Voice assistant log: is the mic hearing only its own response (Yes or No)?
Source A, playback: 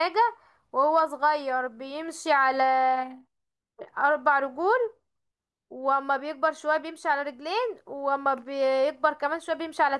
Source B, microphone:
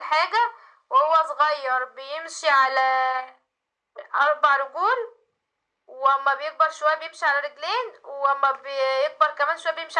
Yes